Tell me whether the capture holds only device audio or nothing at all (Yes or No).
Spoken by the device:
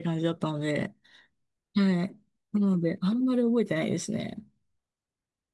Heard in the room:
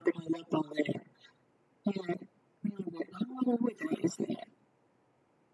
Yes